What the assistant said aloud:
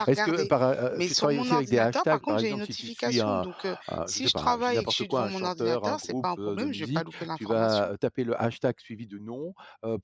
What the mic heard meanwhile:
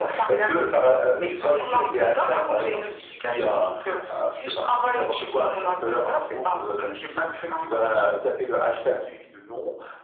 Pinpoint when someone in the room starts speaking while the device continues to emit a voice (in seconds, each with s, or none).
none